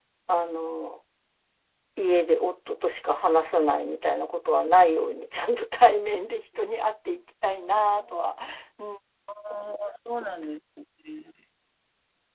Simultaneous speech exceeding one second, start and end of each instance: none

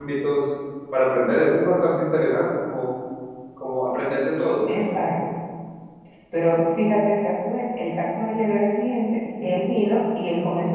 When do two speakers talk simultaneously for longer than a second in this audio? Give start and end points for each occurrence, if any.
none

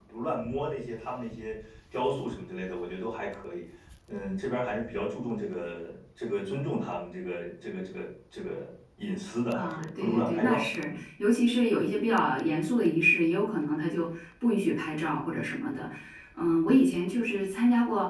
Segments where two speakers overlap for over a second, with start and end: 9.5-11.0

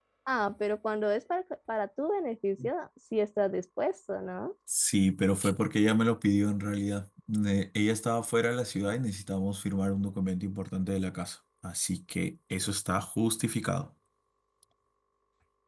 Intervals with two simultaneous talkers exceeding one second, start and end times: none

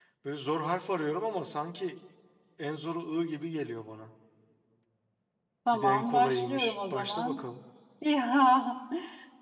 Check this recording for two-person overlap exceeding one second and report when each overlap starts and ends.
5.7-7.4

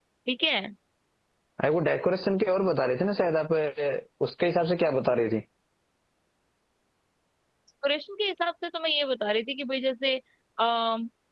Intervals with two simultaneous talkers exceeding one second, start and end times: none

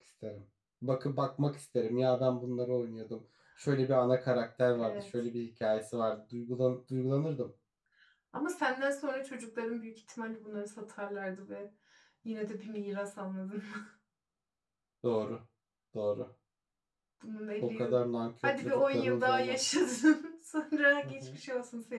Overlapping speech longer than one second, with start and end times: 18.4-20.0

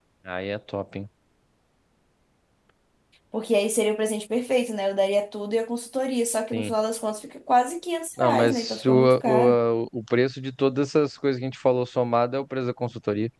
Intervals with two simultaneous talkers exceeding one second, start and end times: 8.2-9.6

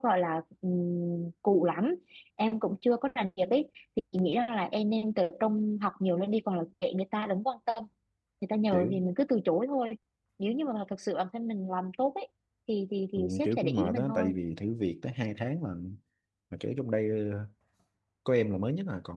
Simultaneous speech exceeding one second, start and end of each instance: 13.1-14.3

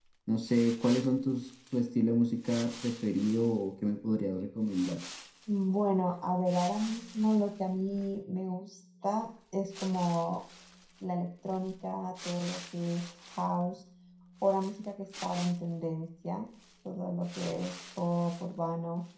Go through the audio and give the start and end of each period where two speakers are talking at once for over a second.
none

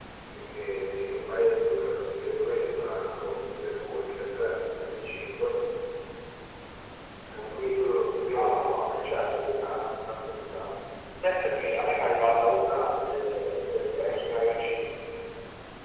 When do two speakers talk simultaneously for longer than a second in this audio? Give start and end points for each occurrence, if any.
none

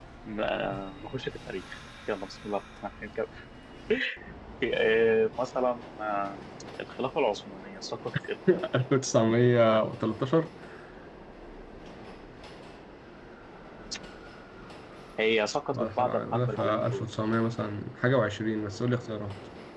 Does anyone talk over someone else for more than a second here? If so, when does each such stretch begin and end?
15.7-17.0

